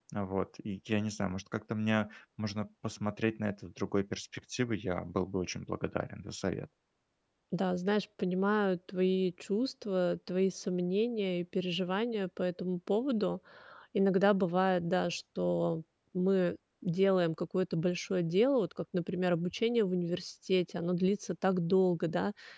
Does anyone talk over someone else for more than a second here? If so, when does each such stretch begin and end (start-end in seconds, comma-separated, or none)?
none